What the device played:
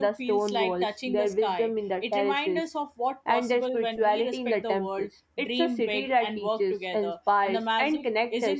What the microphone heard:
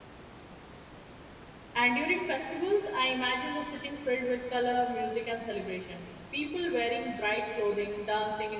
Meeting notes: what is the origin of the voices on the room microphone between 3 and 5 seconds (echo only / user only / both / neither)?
user only